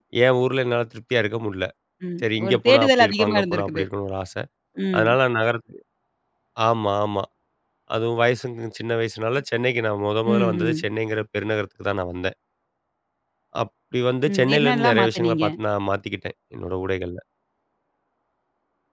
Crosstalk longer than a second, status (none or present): present